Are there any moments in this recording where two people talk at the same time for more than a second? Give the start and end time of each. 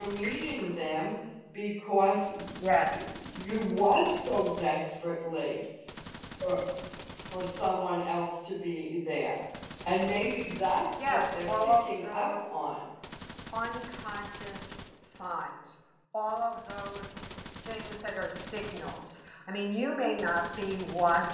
11.0-12.3

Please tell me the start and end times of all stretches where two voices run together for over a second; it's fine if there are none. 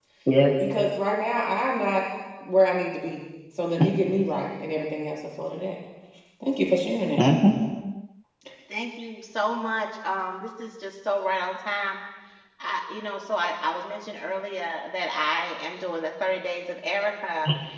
none

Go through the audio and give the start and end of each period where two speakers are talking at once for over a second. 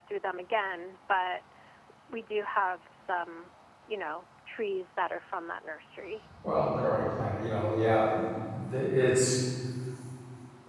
none

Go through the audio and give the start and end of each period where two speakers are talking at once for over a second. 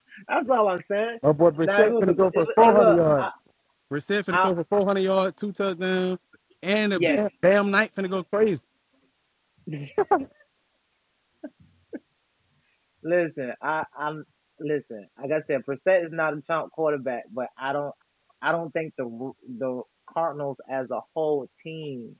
1.6-3.3

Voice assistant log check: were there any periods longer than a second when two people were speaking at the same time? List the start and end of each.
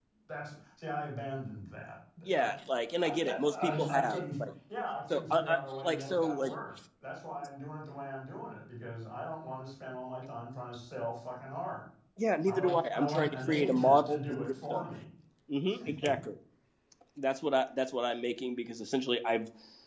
3.0-4.4, 5.1-6.5, 12.5-14.9

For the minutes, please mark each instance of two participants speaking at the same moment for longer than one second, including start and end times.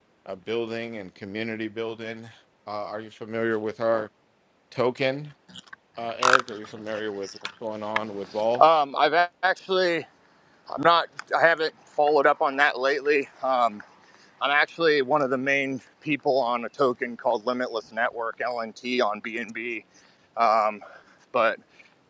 none

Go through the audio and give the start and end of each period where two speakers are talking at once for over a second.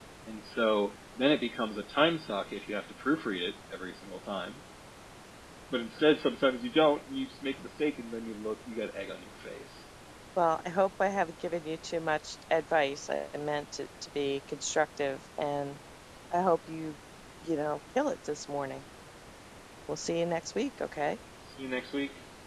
none

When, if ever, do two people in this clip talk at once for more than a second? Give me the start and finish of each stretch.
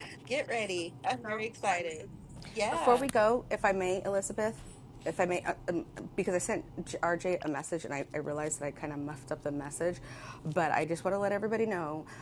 none

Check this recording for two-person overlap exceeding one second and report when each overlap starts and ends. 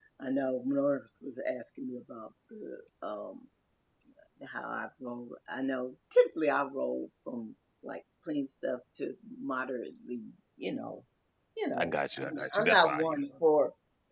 11.8-13.3

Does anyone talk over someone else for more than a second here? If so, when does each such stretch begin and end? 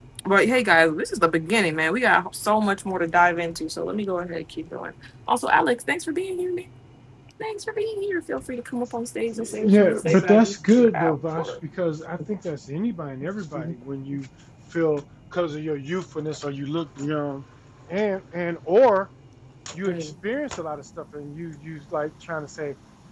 9.6-11.5

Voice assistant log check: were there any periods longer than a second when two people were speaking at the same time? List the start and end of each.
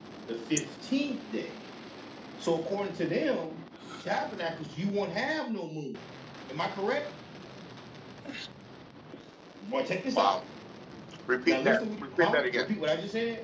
11.4-12.7

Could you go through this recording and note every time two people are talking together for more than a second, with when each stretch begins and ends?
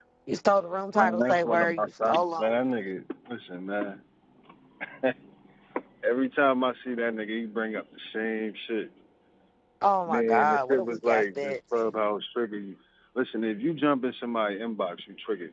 1.2-2.6, 10.1-11.6

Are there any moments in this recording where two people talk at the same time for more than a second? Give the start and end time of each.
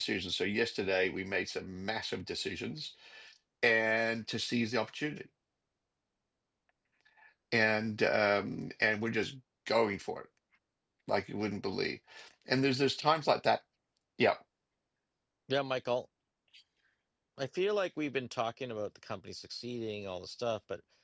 none

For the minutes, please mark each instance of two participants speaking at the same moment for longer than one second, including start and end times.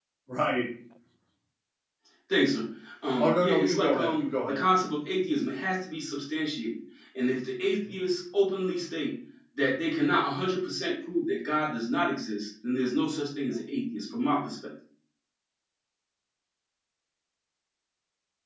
3.2-4.6

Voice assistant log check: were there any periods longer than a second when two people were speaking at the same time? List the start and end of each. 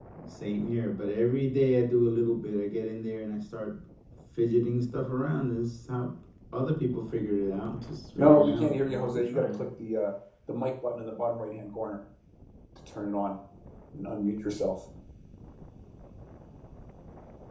8.2-9.6

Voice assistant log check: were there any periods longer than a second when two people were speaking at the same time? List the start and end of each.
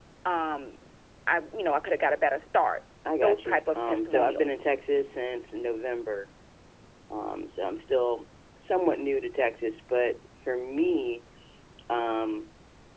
3.2-4.5

